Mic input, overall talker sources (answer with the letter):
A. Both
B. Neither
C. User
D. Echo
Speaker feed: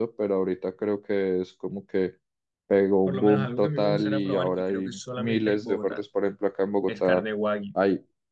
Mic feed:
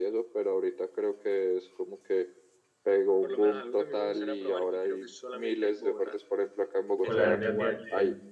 A